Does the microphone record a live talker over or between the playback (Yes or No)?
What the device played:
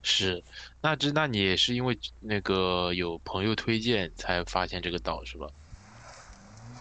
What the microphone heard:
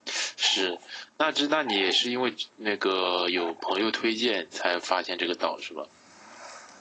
No